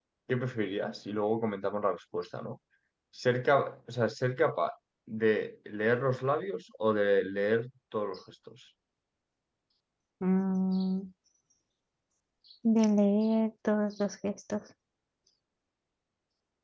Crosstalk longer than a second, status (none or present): none